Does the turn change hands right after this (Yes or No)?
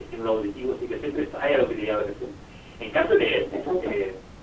No